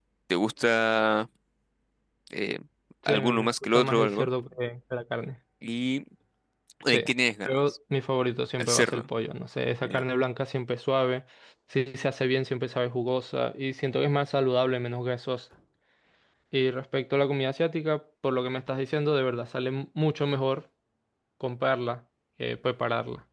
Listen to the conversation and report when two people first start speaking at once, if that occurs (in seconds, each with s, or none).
3.1 s